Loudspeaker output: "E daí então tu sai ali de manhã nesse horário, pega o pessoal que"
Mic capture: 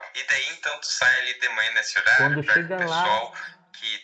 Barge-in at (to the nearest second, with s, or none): 2 s